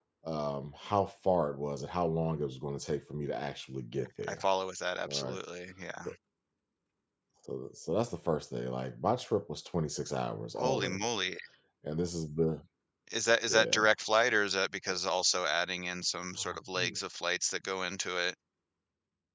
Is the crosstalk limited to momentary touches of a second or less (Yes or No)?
Yes